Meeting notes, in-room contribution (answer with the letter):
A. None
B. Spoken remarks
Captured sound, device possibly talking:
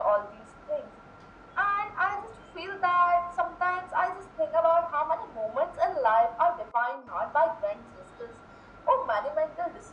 A